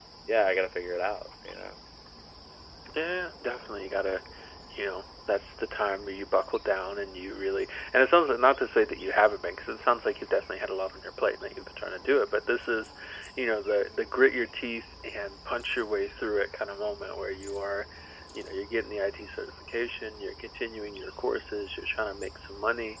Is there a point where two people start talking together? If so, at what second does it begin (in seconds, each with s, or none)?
none